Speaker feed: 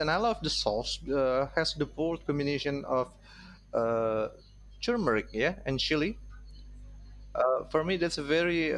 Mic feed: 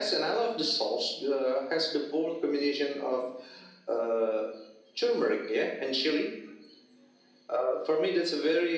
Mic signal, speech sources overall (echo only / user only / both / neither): echo only